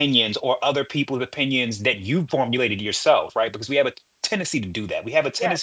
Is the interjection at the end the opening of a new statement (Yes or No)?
No